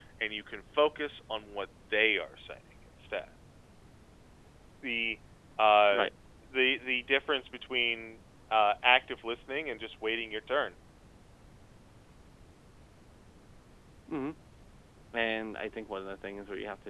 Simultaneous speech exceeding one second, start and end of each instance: none

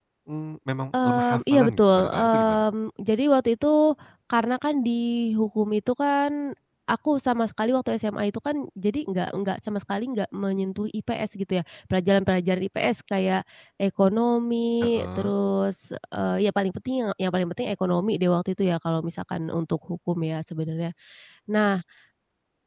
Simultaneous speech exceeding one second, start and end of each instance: 1.0-2.6

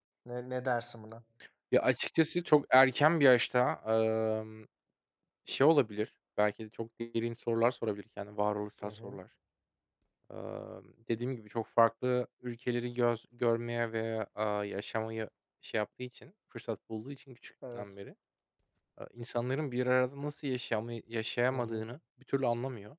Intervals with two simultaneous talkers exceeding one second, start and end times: none

